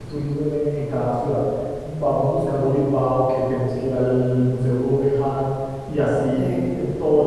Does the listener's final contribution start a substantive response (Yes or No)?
No